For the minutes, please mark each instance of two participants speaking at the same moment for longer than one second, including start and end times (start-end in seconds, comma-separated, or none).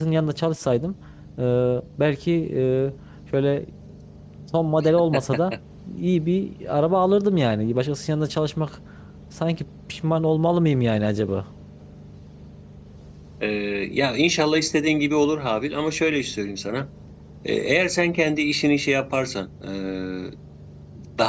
none